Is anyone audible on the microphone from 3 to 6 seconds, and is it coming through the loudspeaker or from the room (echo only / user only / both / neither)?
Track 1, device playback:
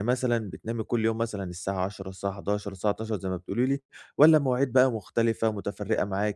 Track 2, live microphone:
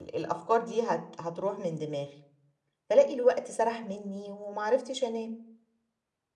user only